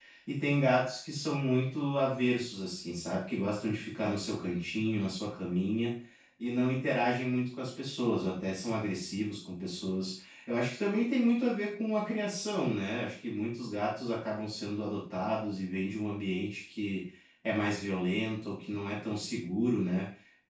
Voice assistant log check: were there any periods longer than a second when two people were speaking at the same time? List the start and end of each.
none

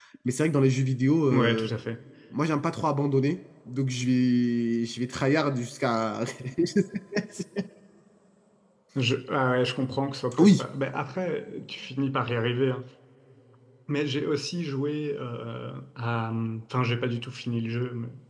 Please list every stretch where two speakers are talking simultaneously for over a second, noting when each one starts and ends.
none

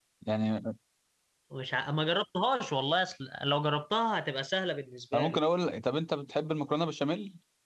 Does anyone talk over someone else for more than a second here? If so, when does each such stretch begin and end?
none

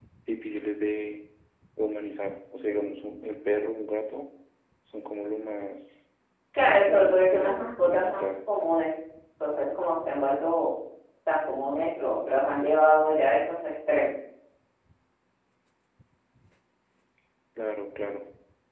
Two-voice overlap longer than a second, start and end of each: 6.6-8.3

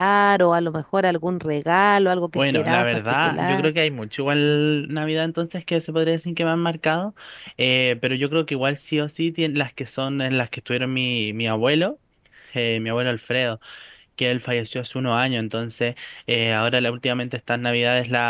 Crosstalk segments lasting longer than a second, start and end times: 2.4-3.7

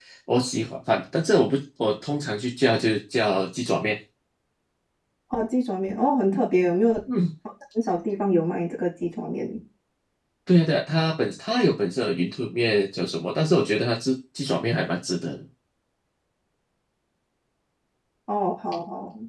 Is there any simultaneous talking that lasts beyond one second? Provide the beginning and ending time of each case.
none

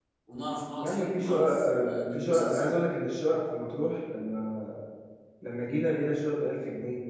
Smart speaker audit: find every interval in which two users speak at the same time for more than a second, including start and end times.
0.8-2.8

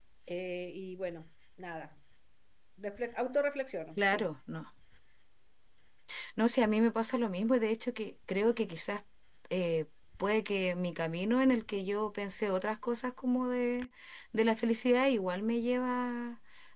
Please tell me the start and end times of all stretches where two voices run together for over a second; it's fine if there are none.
none

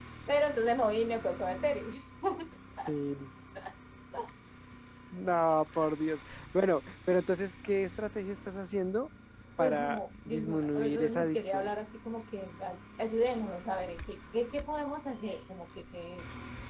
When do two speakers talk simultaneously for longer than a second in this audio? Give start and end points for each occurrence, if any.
9.6-11.8

